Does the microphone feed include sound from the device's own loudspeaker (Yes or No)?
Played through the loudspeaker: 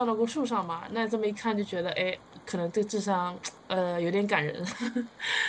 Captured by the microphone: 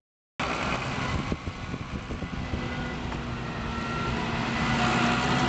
No